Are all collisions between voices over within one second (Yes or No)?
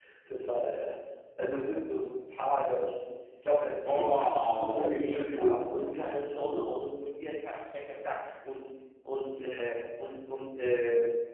No